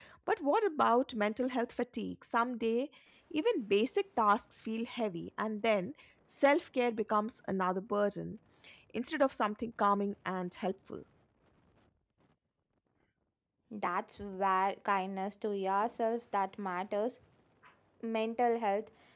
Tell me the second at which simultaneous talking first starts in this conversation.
none

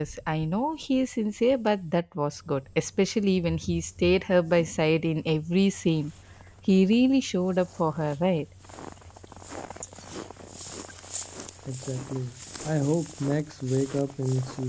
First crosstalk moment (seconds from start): none

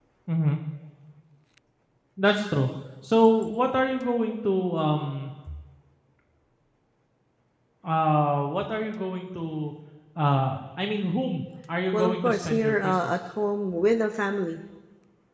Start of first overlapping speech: 12 s

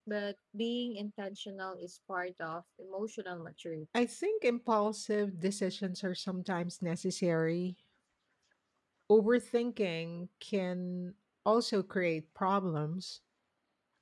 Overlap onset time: none

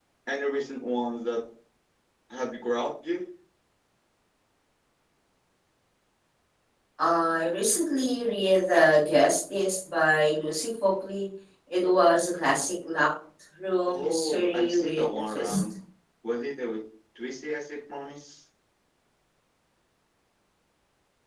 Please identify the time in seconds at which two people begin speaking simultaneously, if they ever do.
14 s

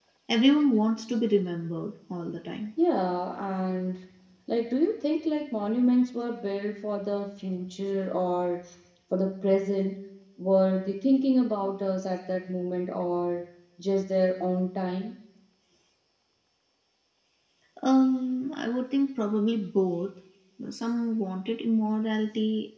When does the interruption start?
none

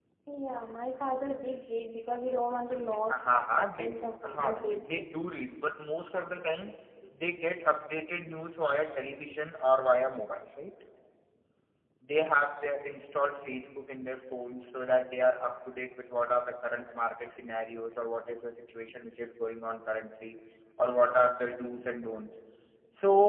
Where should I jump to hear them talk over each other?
3 s

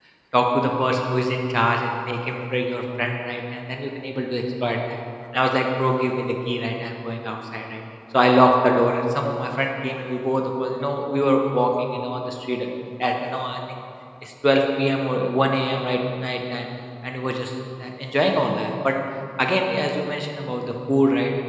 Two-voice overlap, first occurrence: none

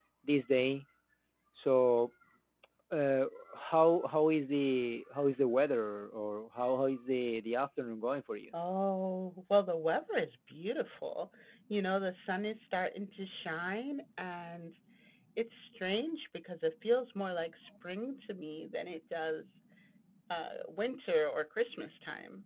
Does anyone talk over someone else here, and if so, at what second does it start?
none

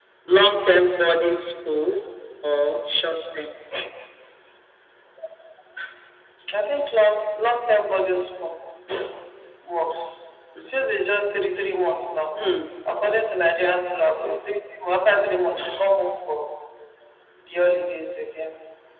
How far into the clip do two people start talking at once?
none

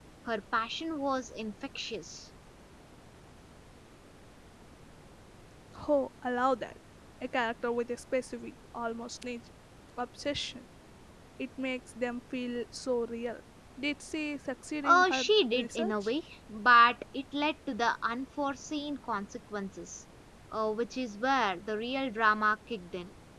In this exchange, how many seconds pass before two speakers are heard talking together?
15 s

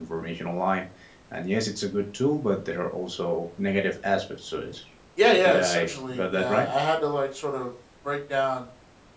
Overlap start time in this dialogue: 5 s

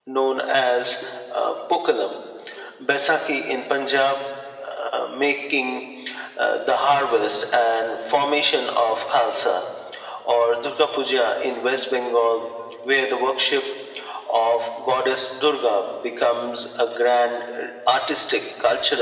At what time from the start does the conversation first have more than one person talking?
none

